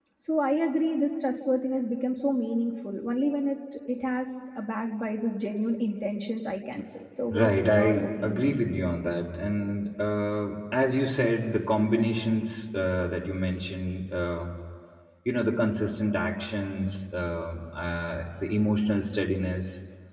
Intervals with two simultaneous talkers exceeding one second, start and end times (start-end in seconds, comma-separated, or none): 7.3-8.6